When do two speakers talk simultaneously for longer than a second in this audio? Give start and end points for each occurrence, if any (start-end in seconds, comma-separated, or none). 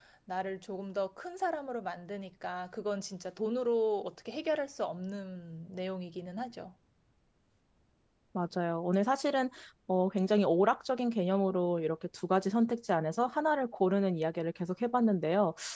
none